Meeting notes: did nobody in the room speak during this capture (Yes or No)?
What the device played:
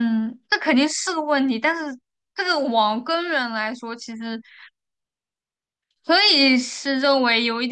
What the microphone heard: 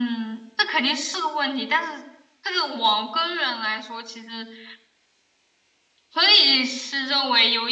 Yes